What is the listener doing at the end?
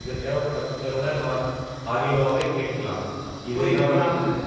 taking over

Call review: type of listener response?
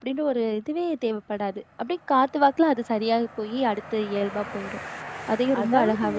taking over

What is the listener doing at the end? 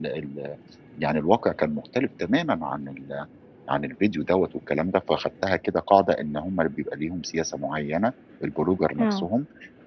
listening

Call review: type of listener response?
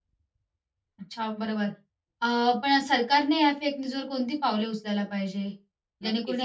taking over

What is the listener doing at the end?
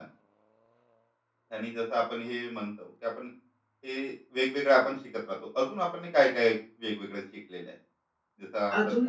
taking over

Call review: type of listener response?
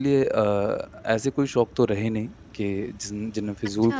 listening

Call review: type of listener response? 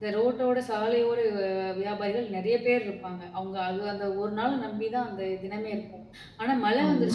listening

